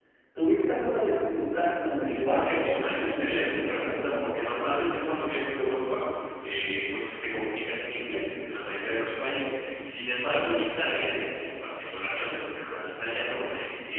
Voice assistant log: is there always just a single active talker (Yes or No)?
No